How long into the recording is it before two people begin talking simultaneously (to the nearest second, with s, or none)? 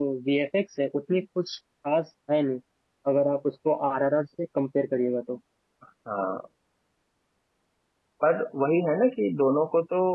none